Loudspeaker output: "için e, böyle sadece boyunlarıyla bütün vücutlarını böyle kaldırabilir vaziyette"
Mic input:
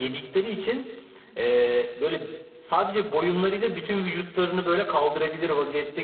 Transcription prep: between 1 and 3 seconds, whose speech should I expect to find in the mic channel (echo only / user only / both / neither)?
echo only